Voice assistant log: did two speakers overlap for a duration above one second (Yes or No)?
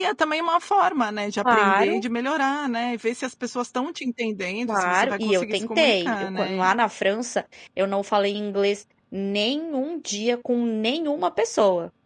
Yes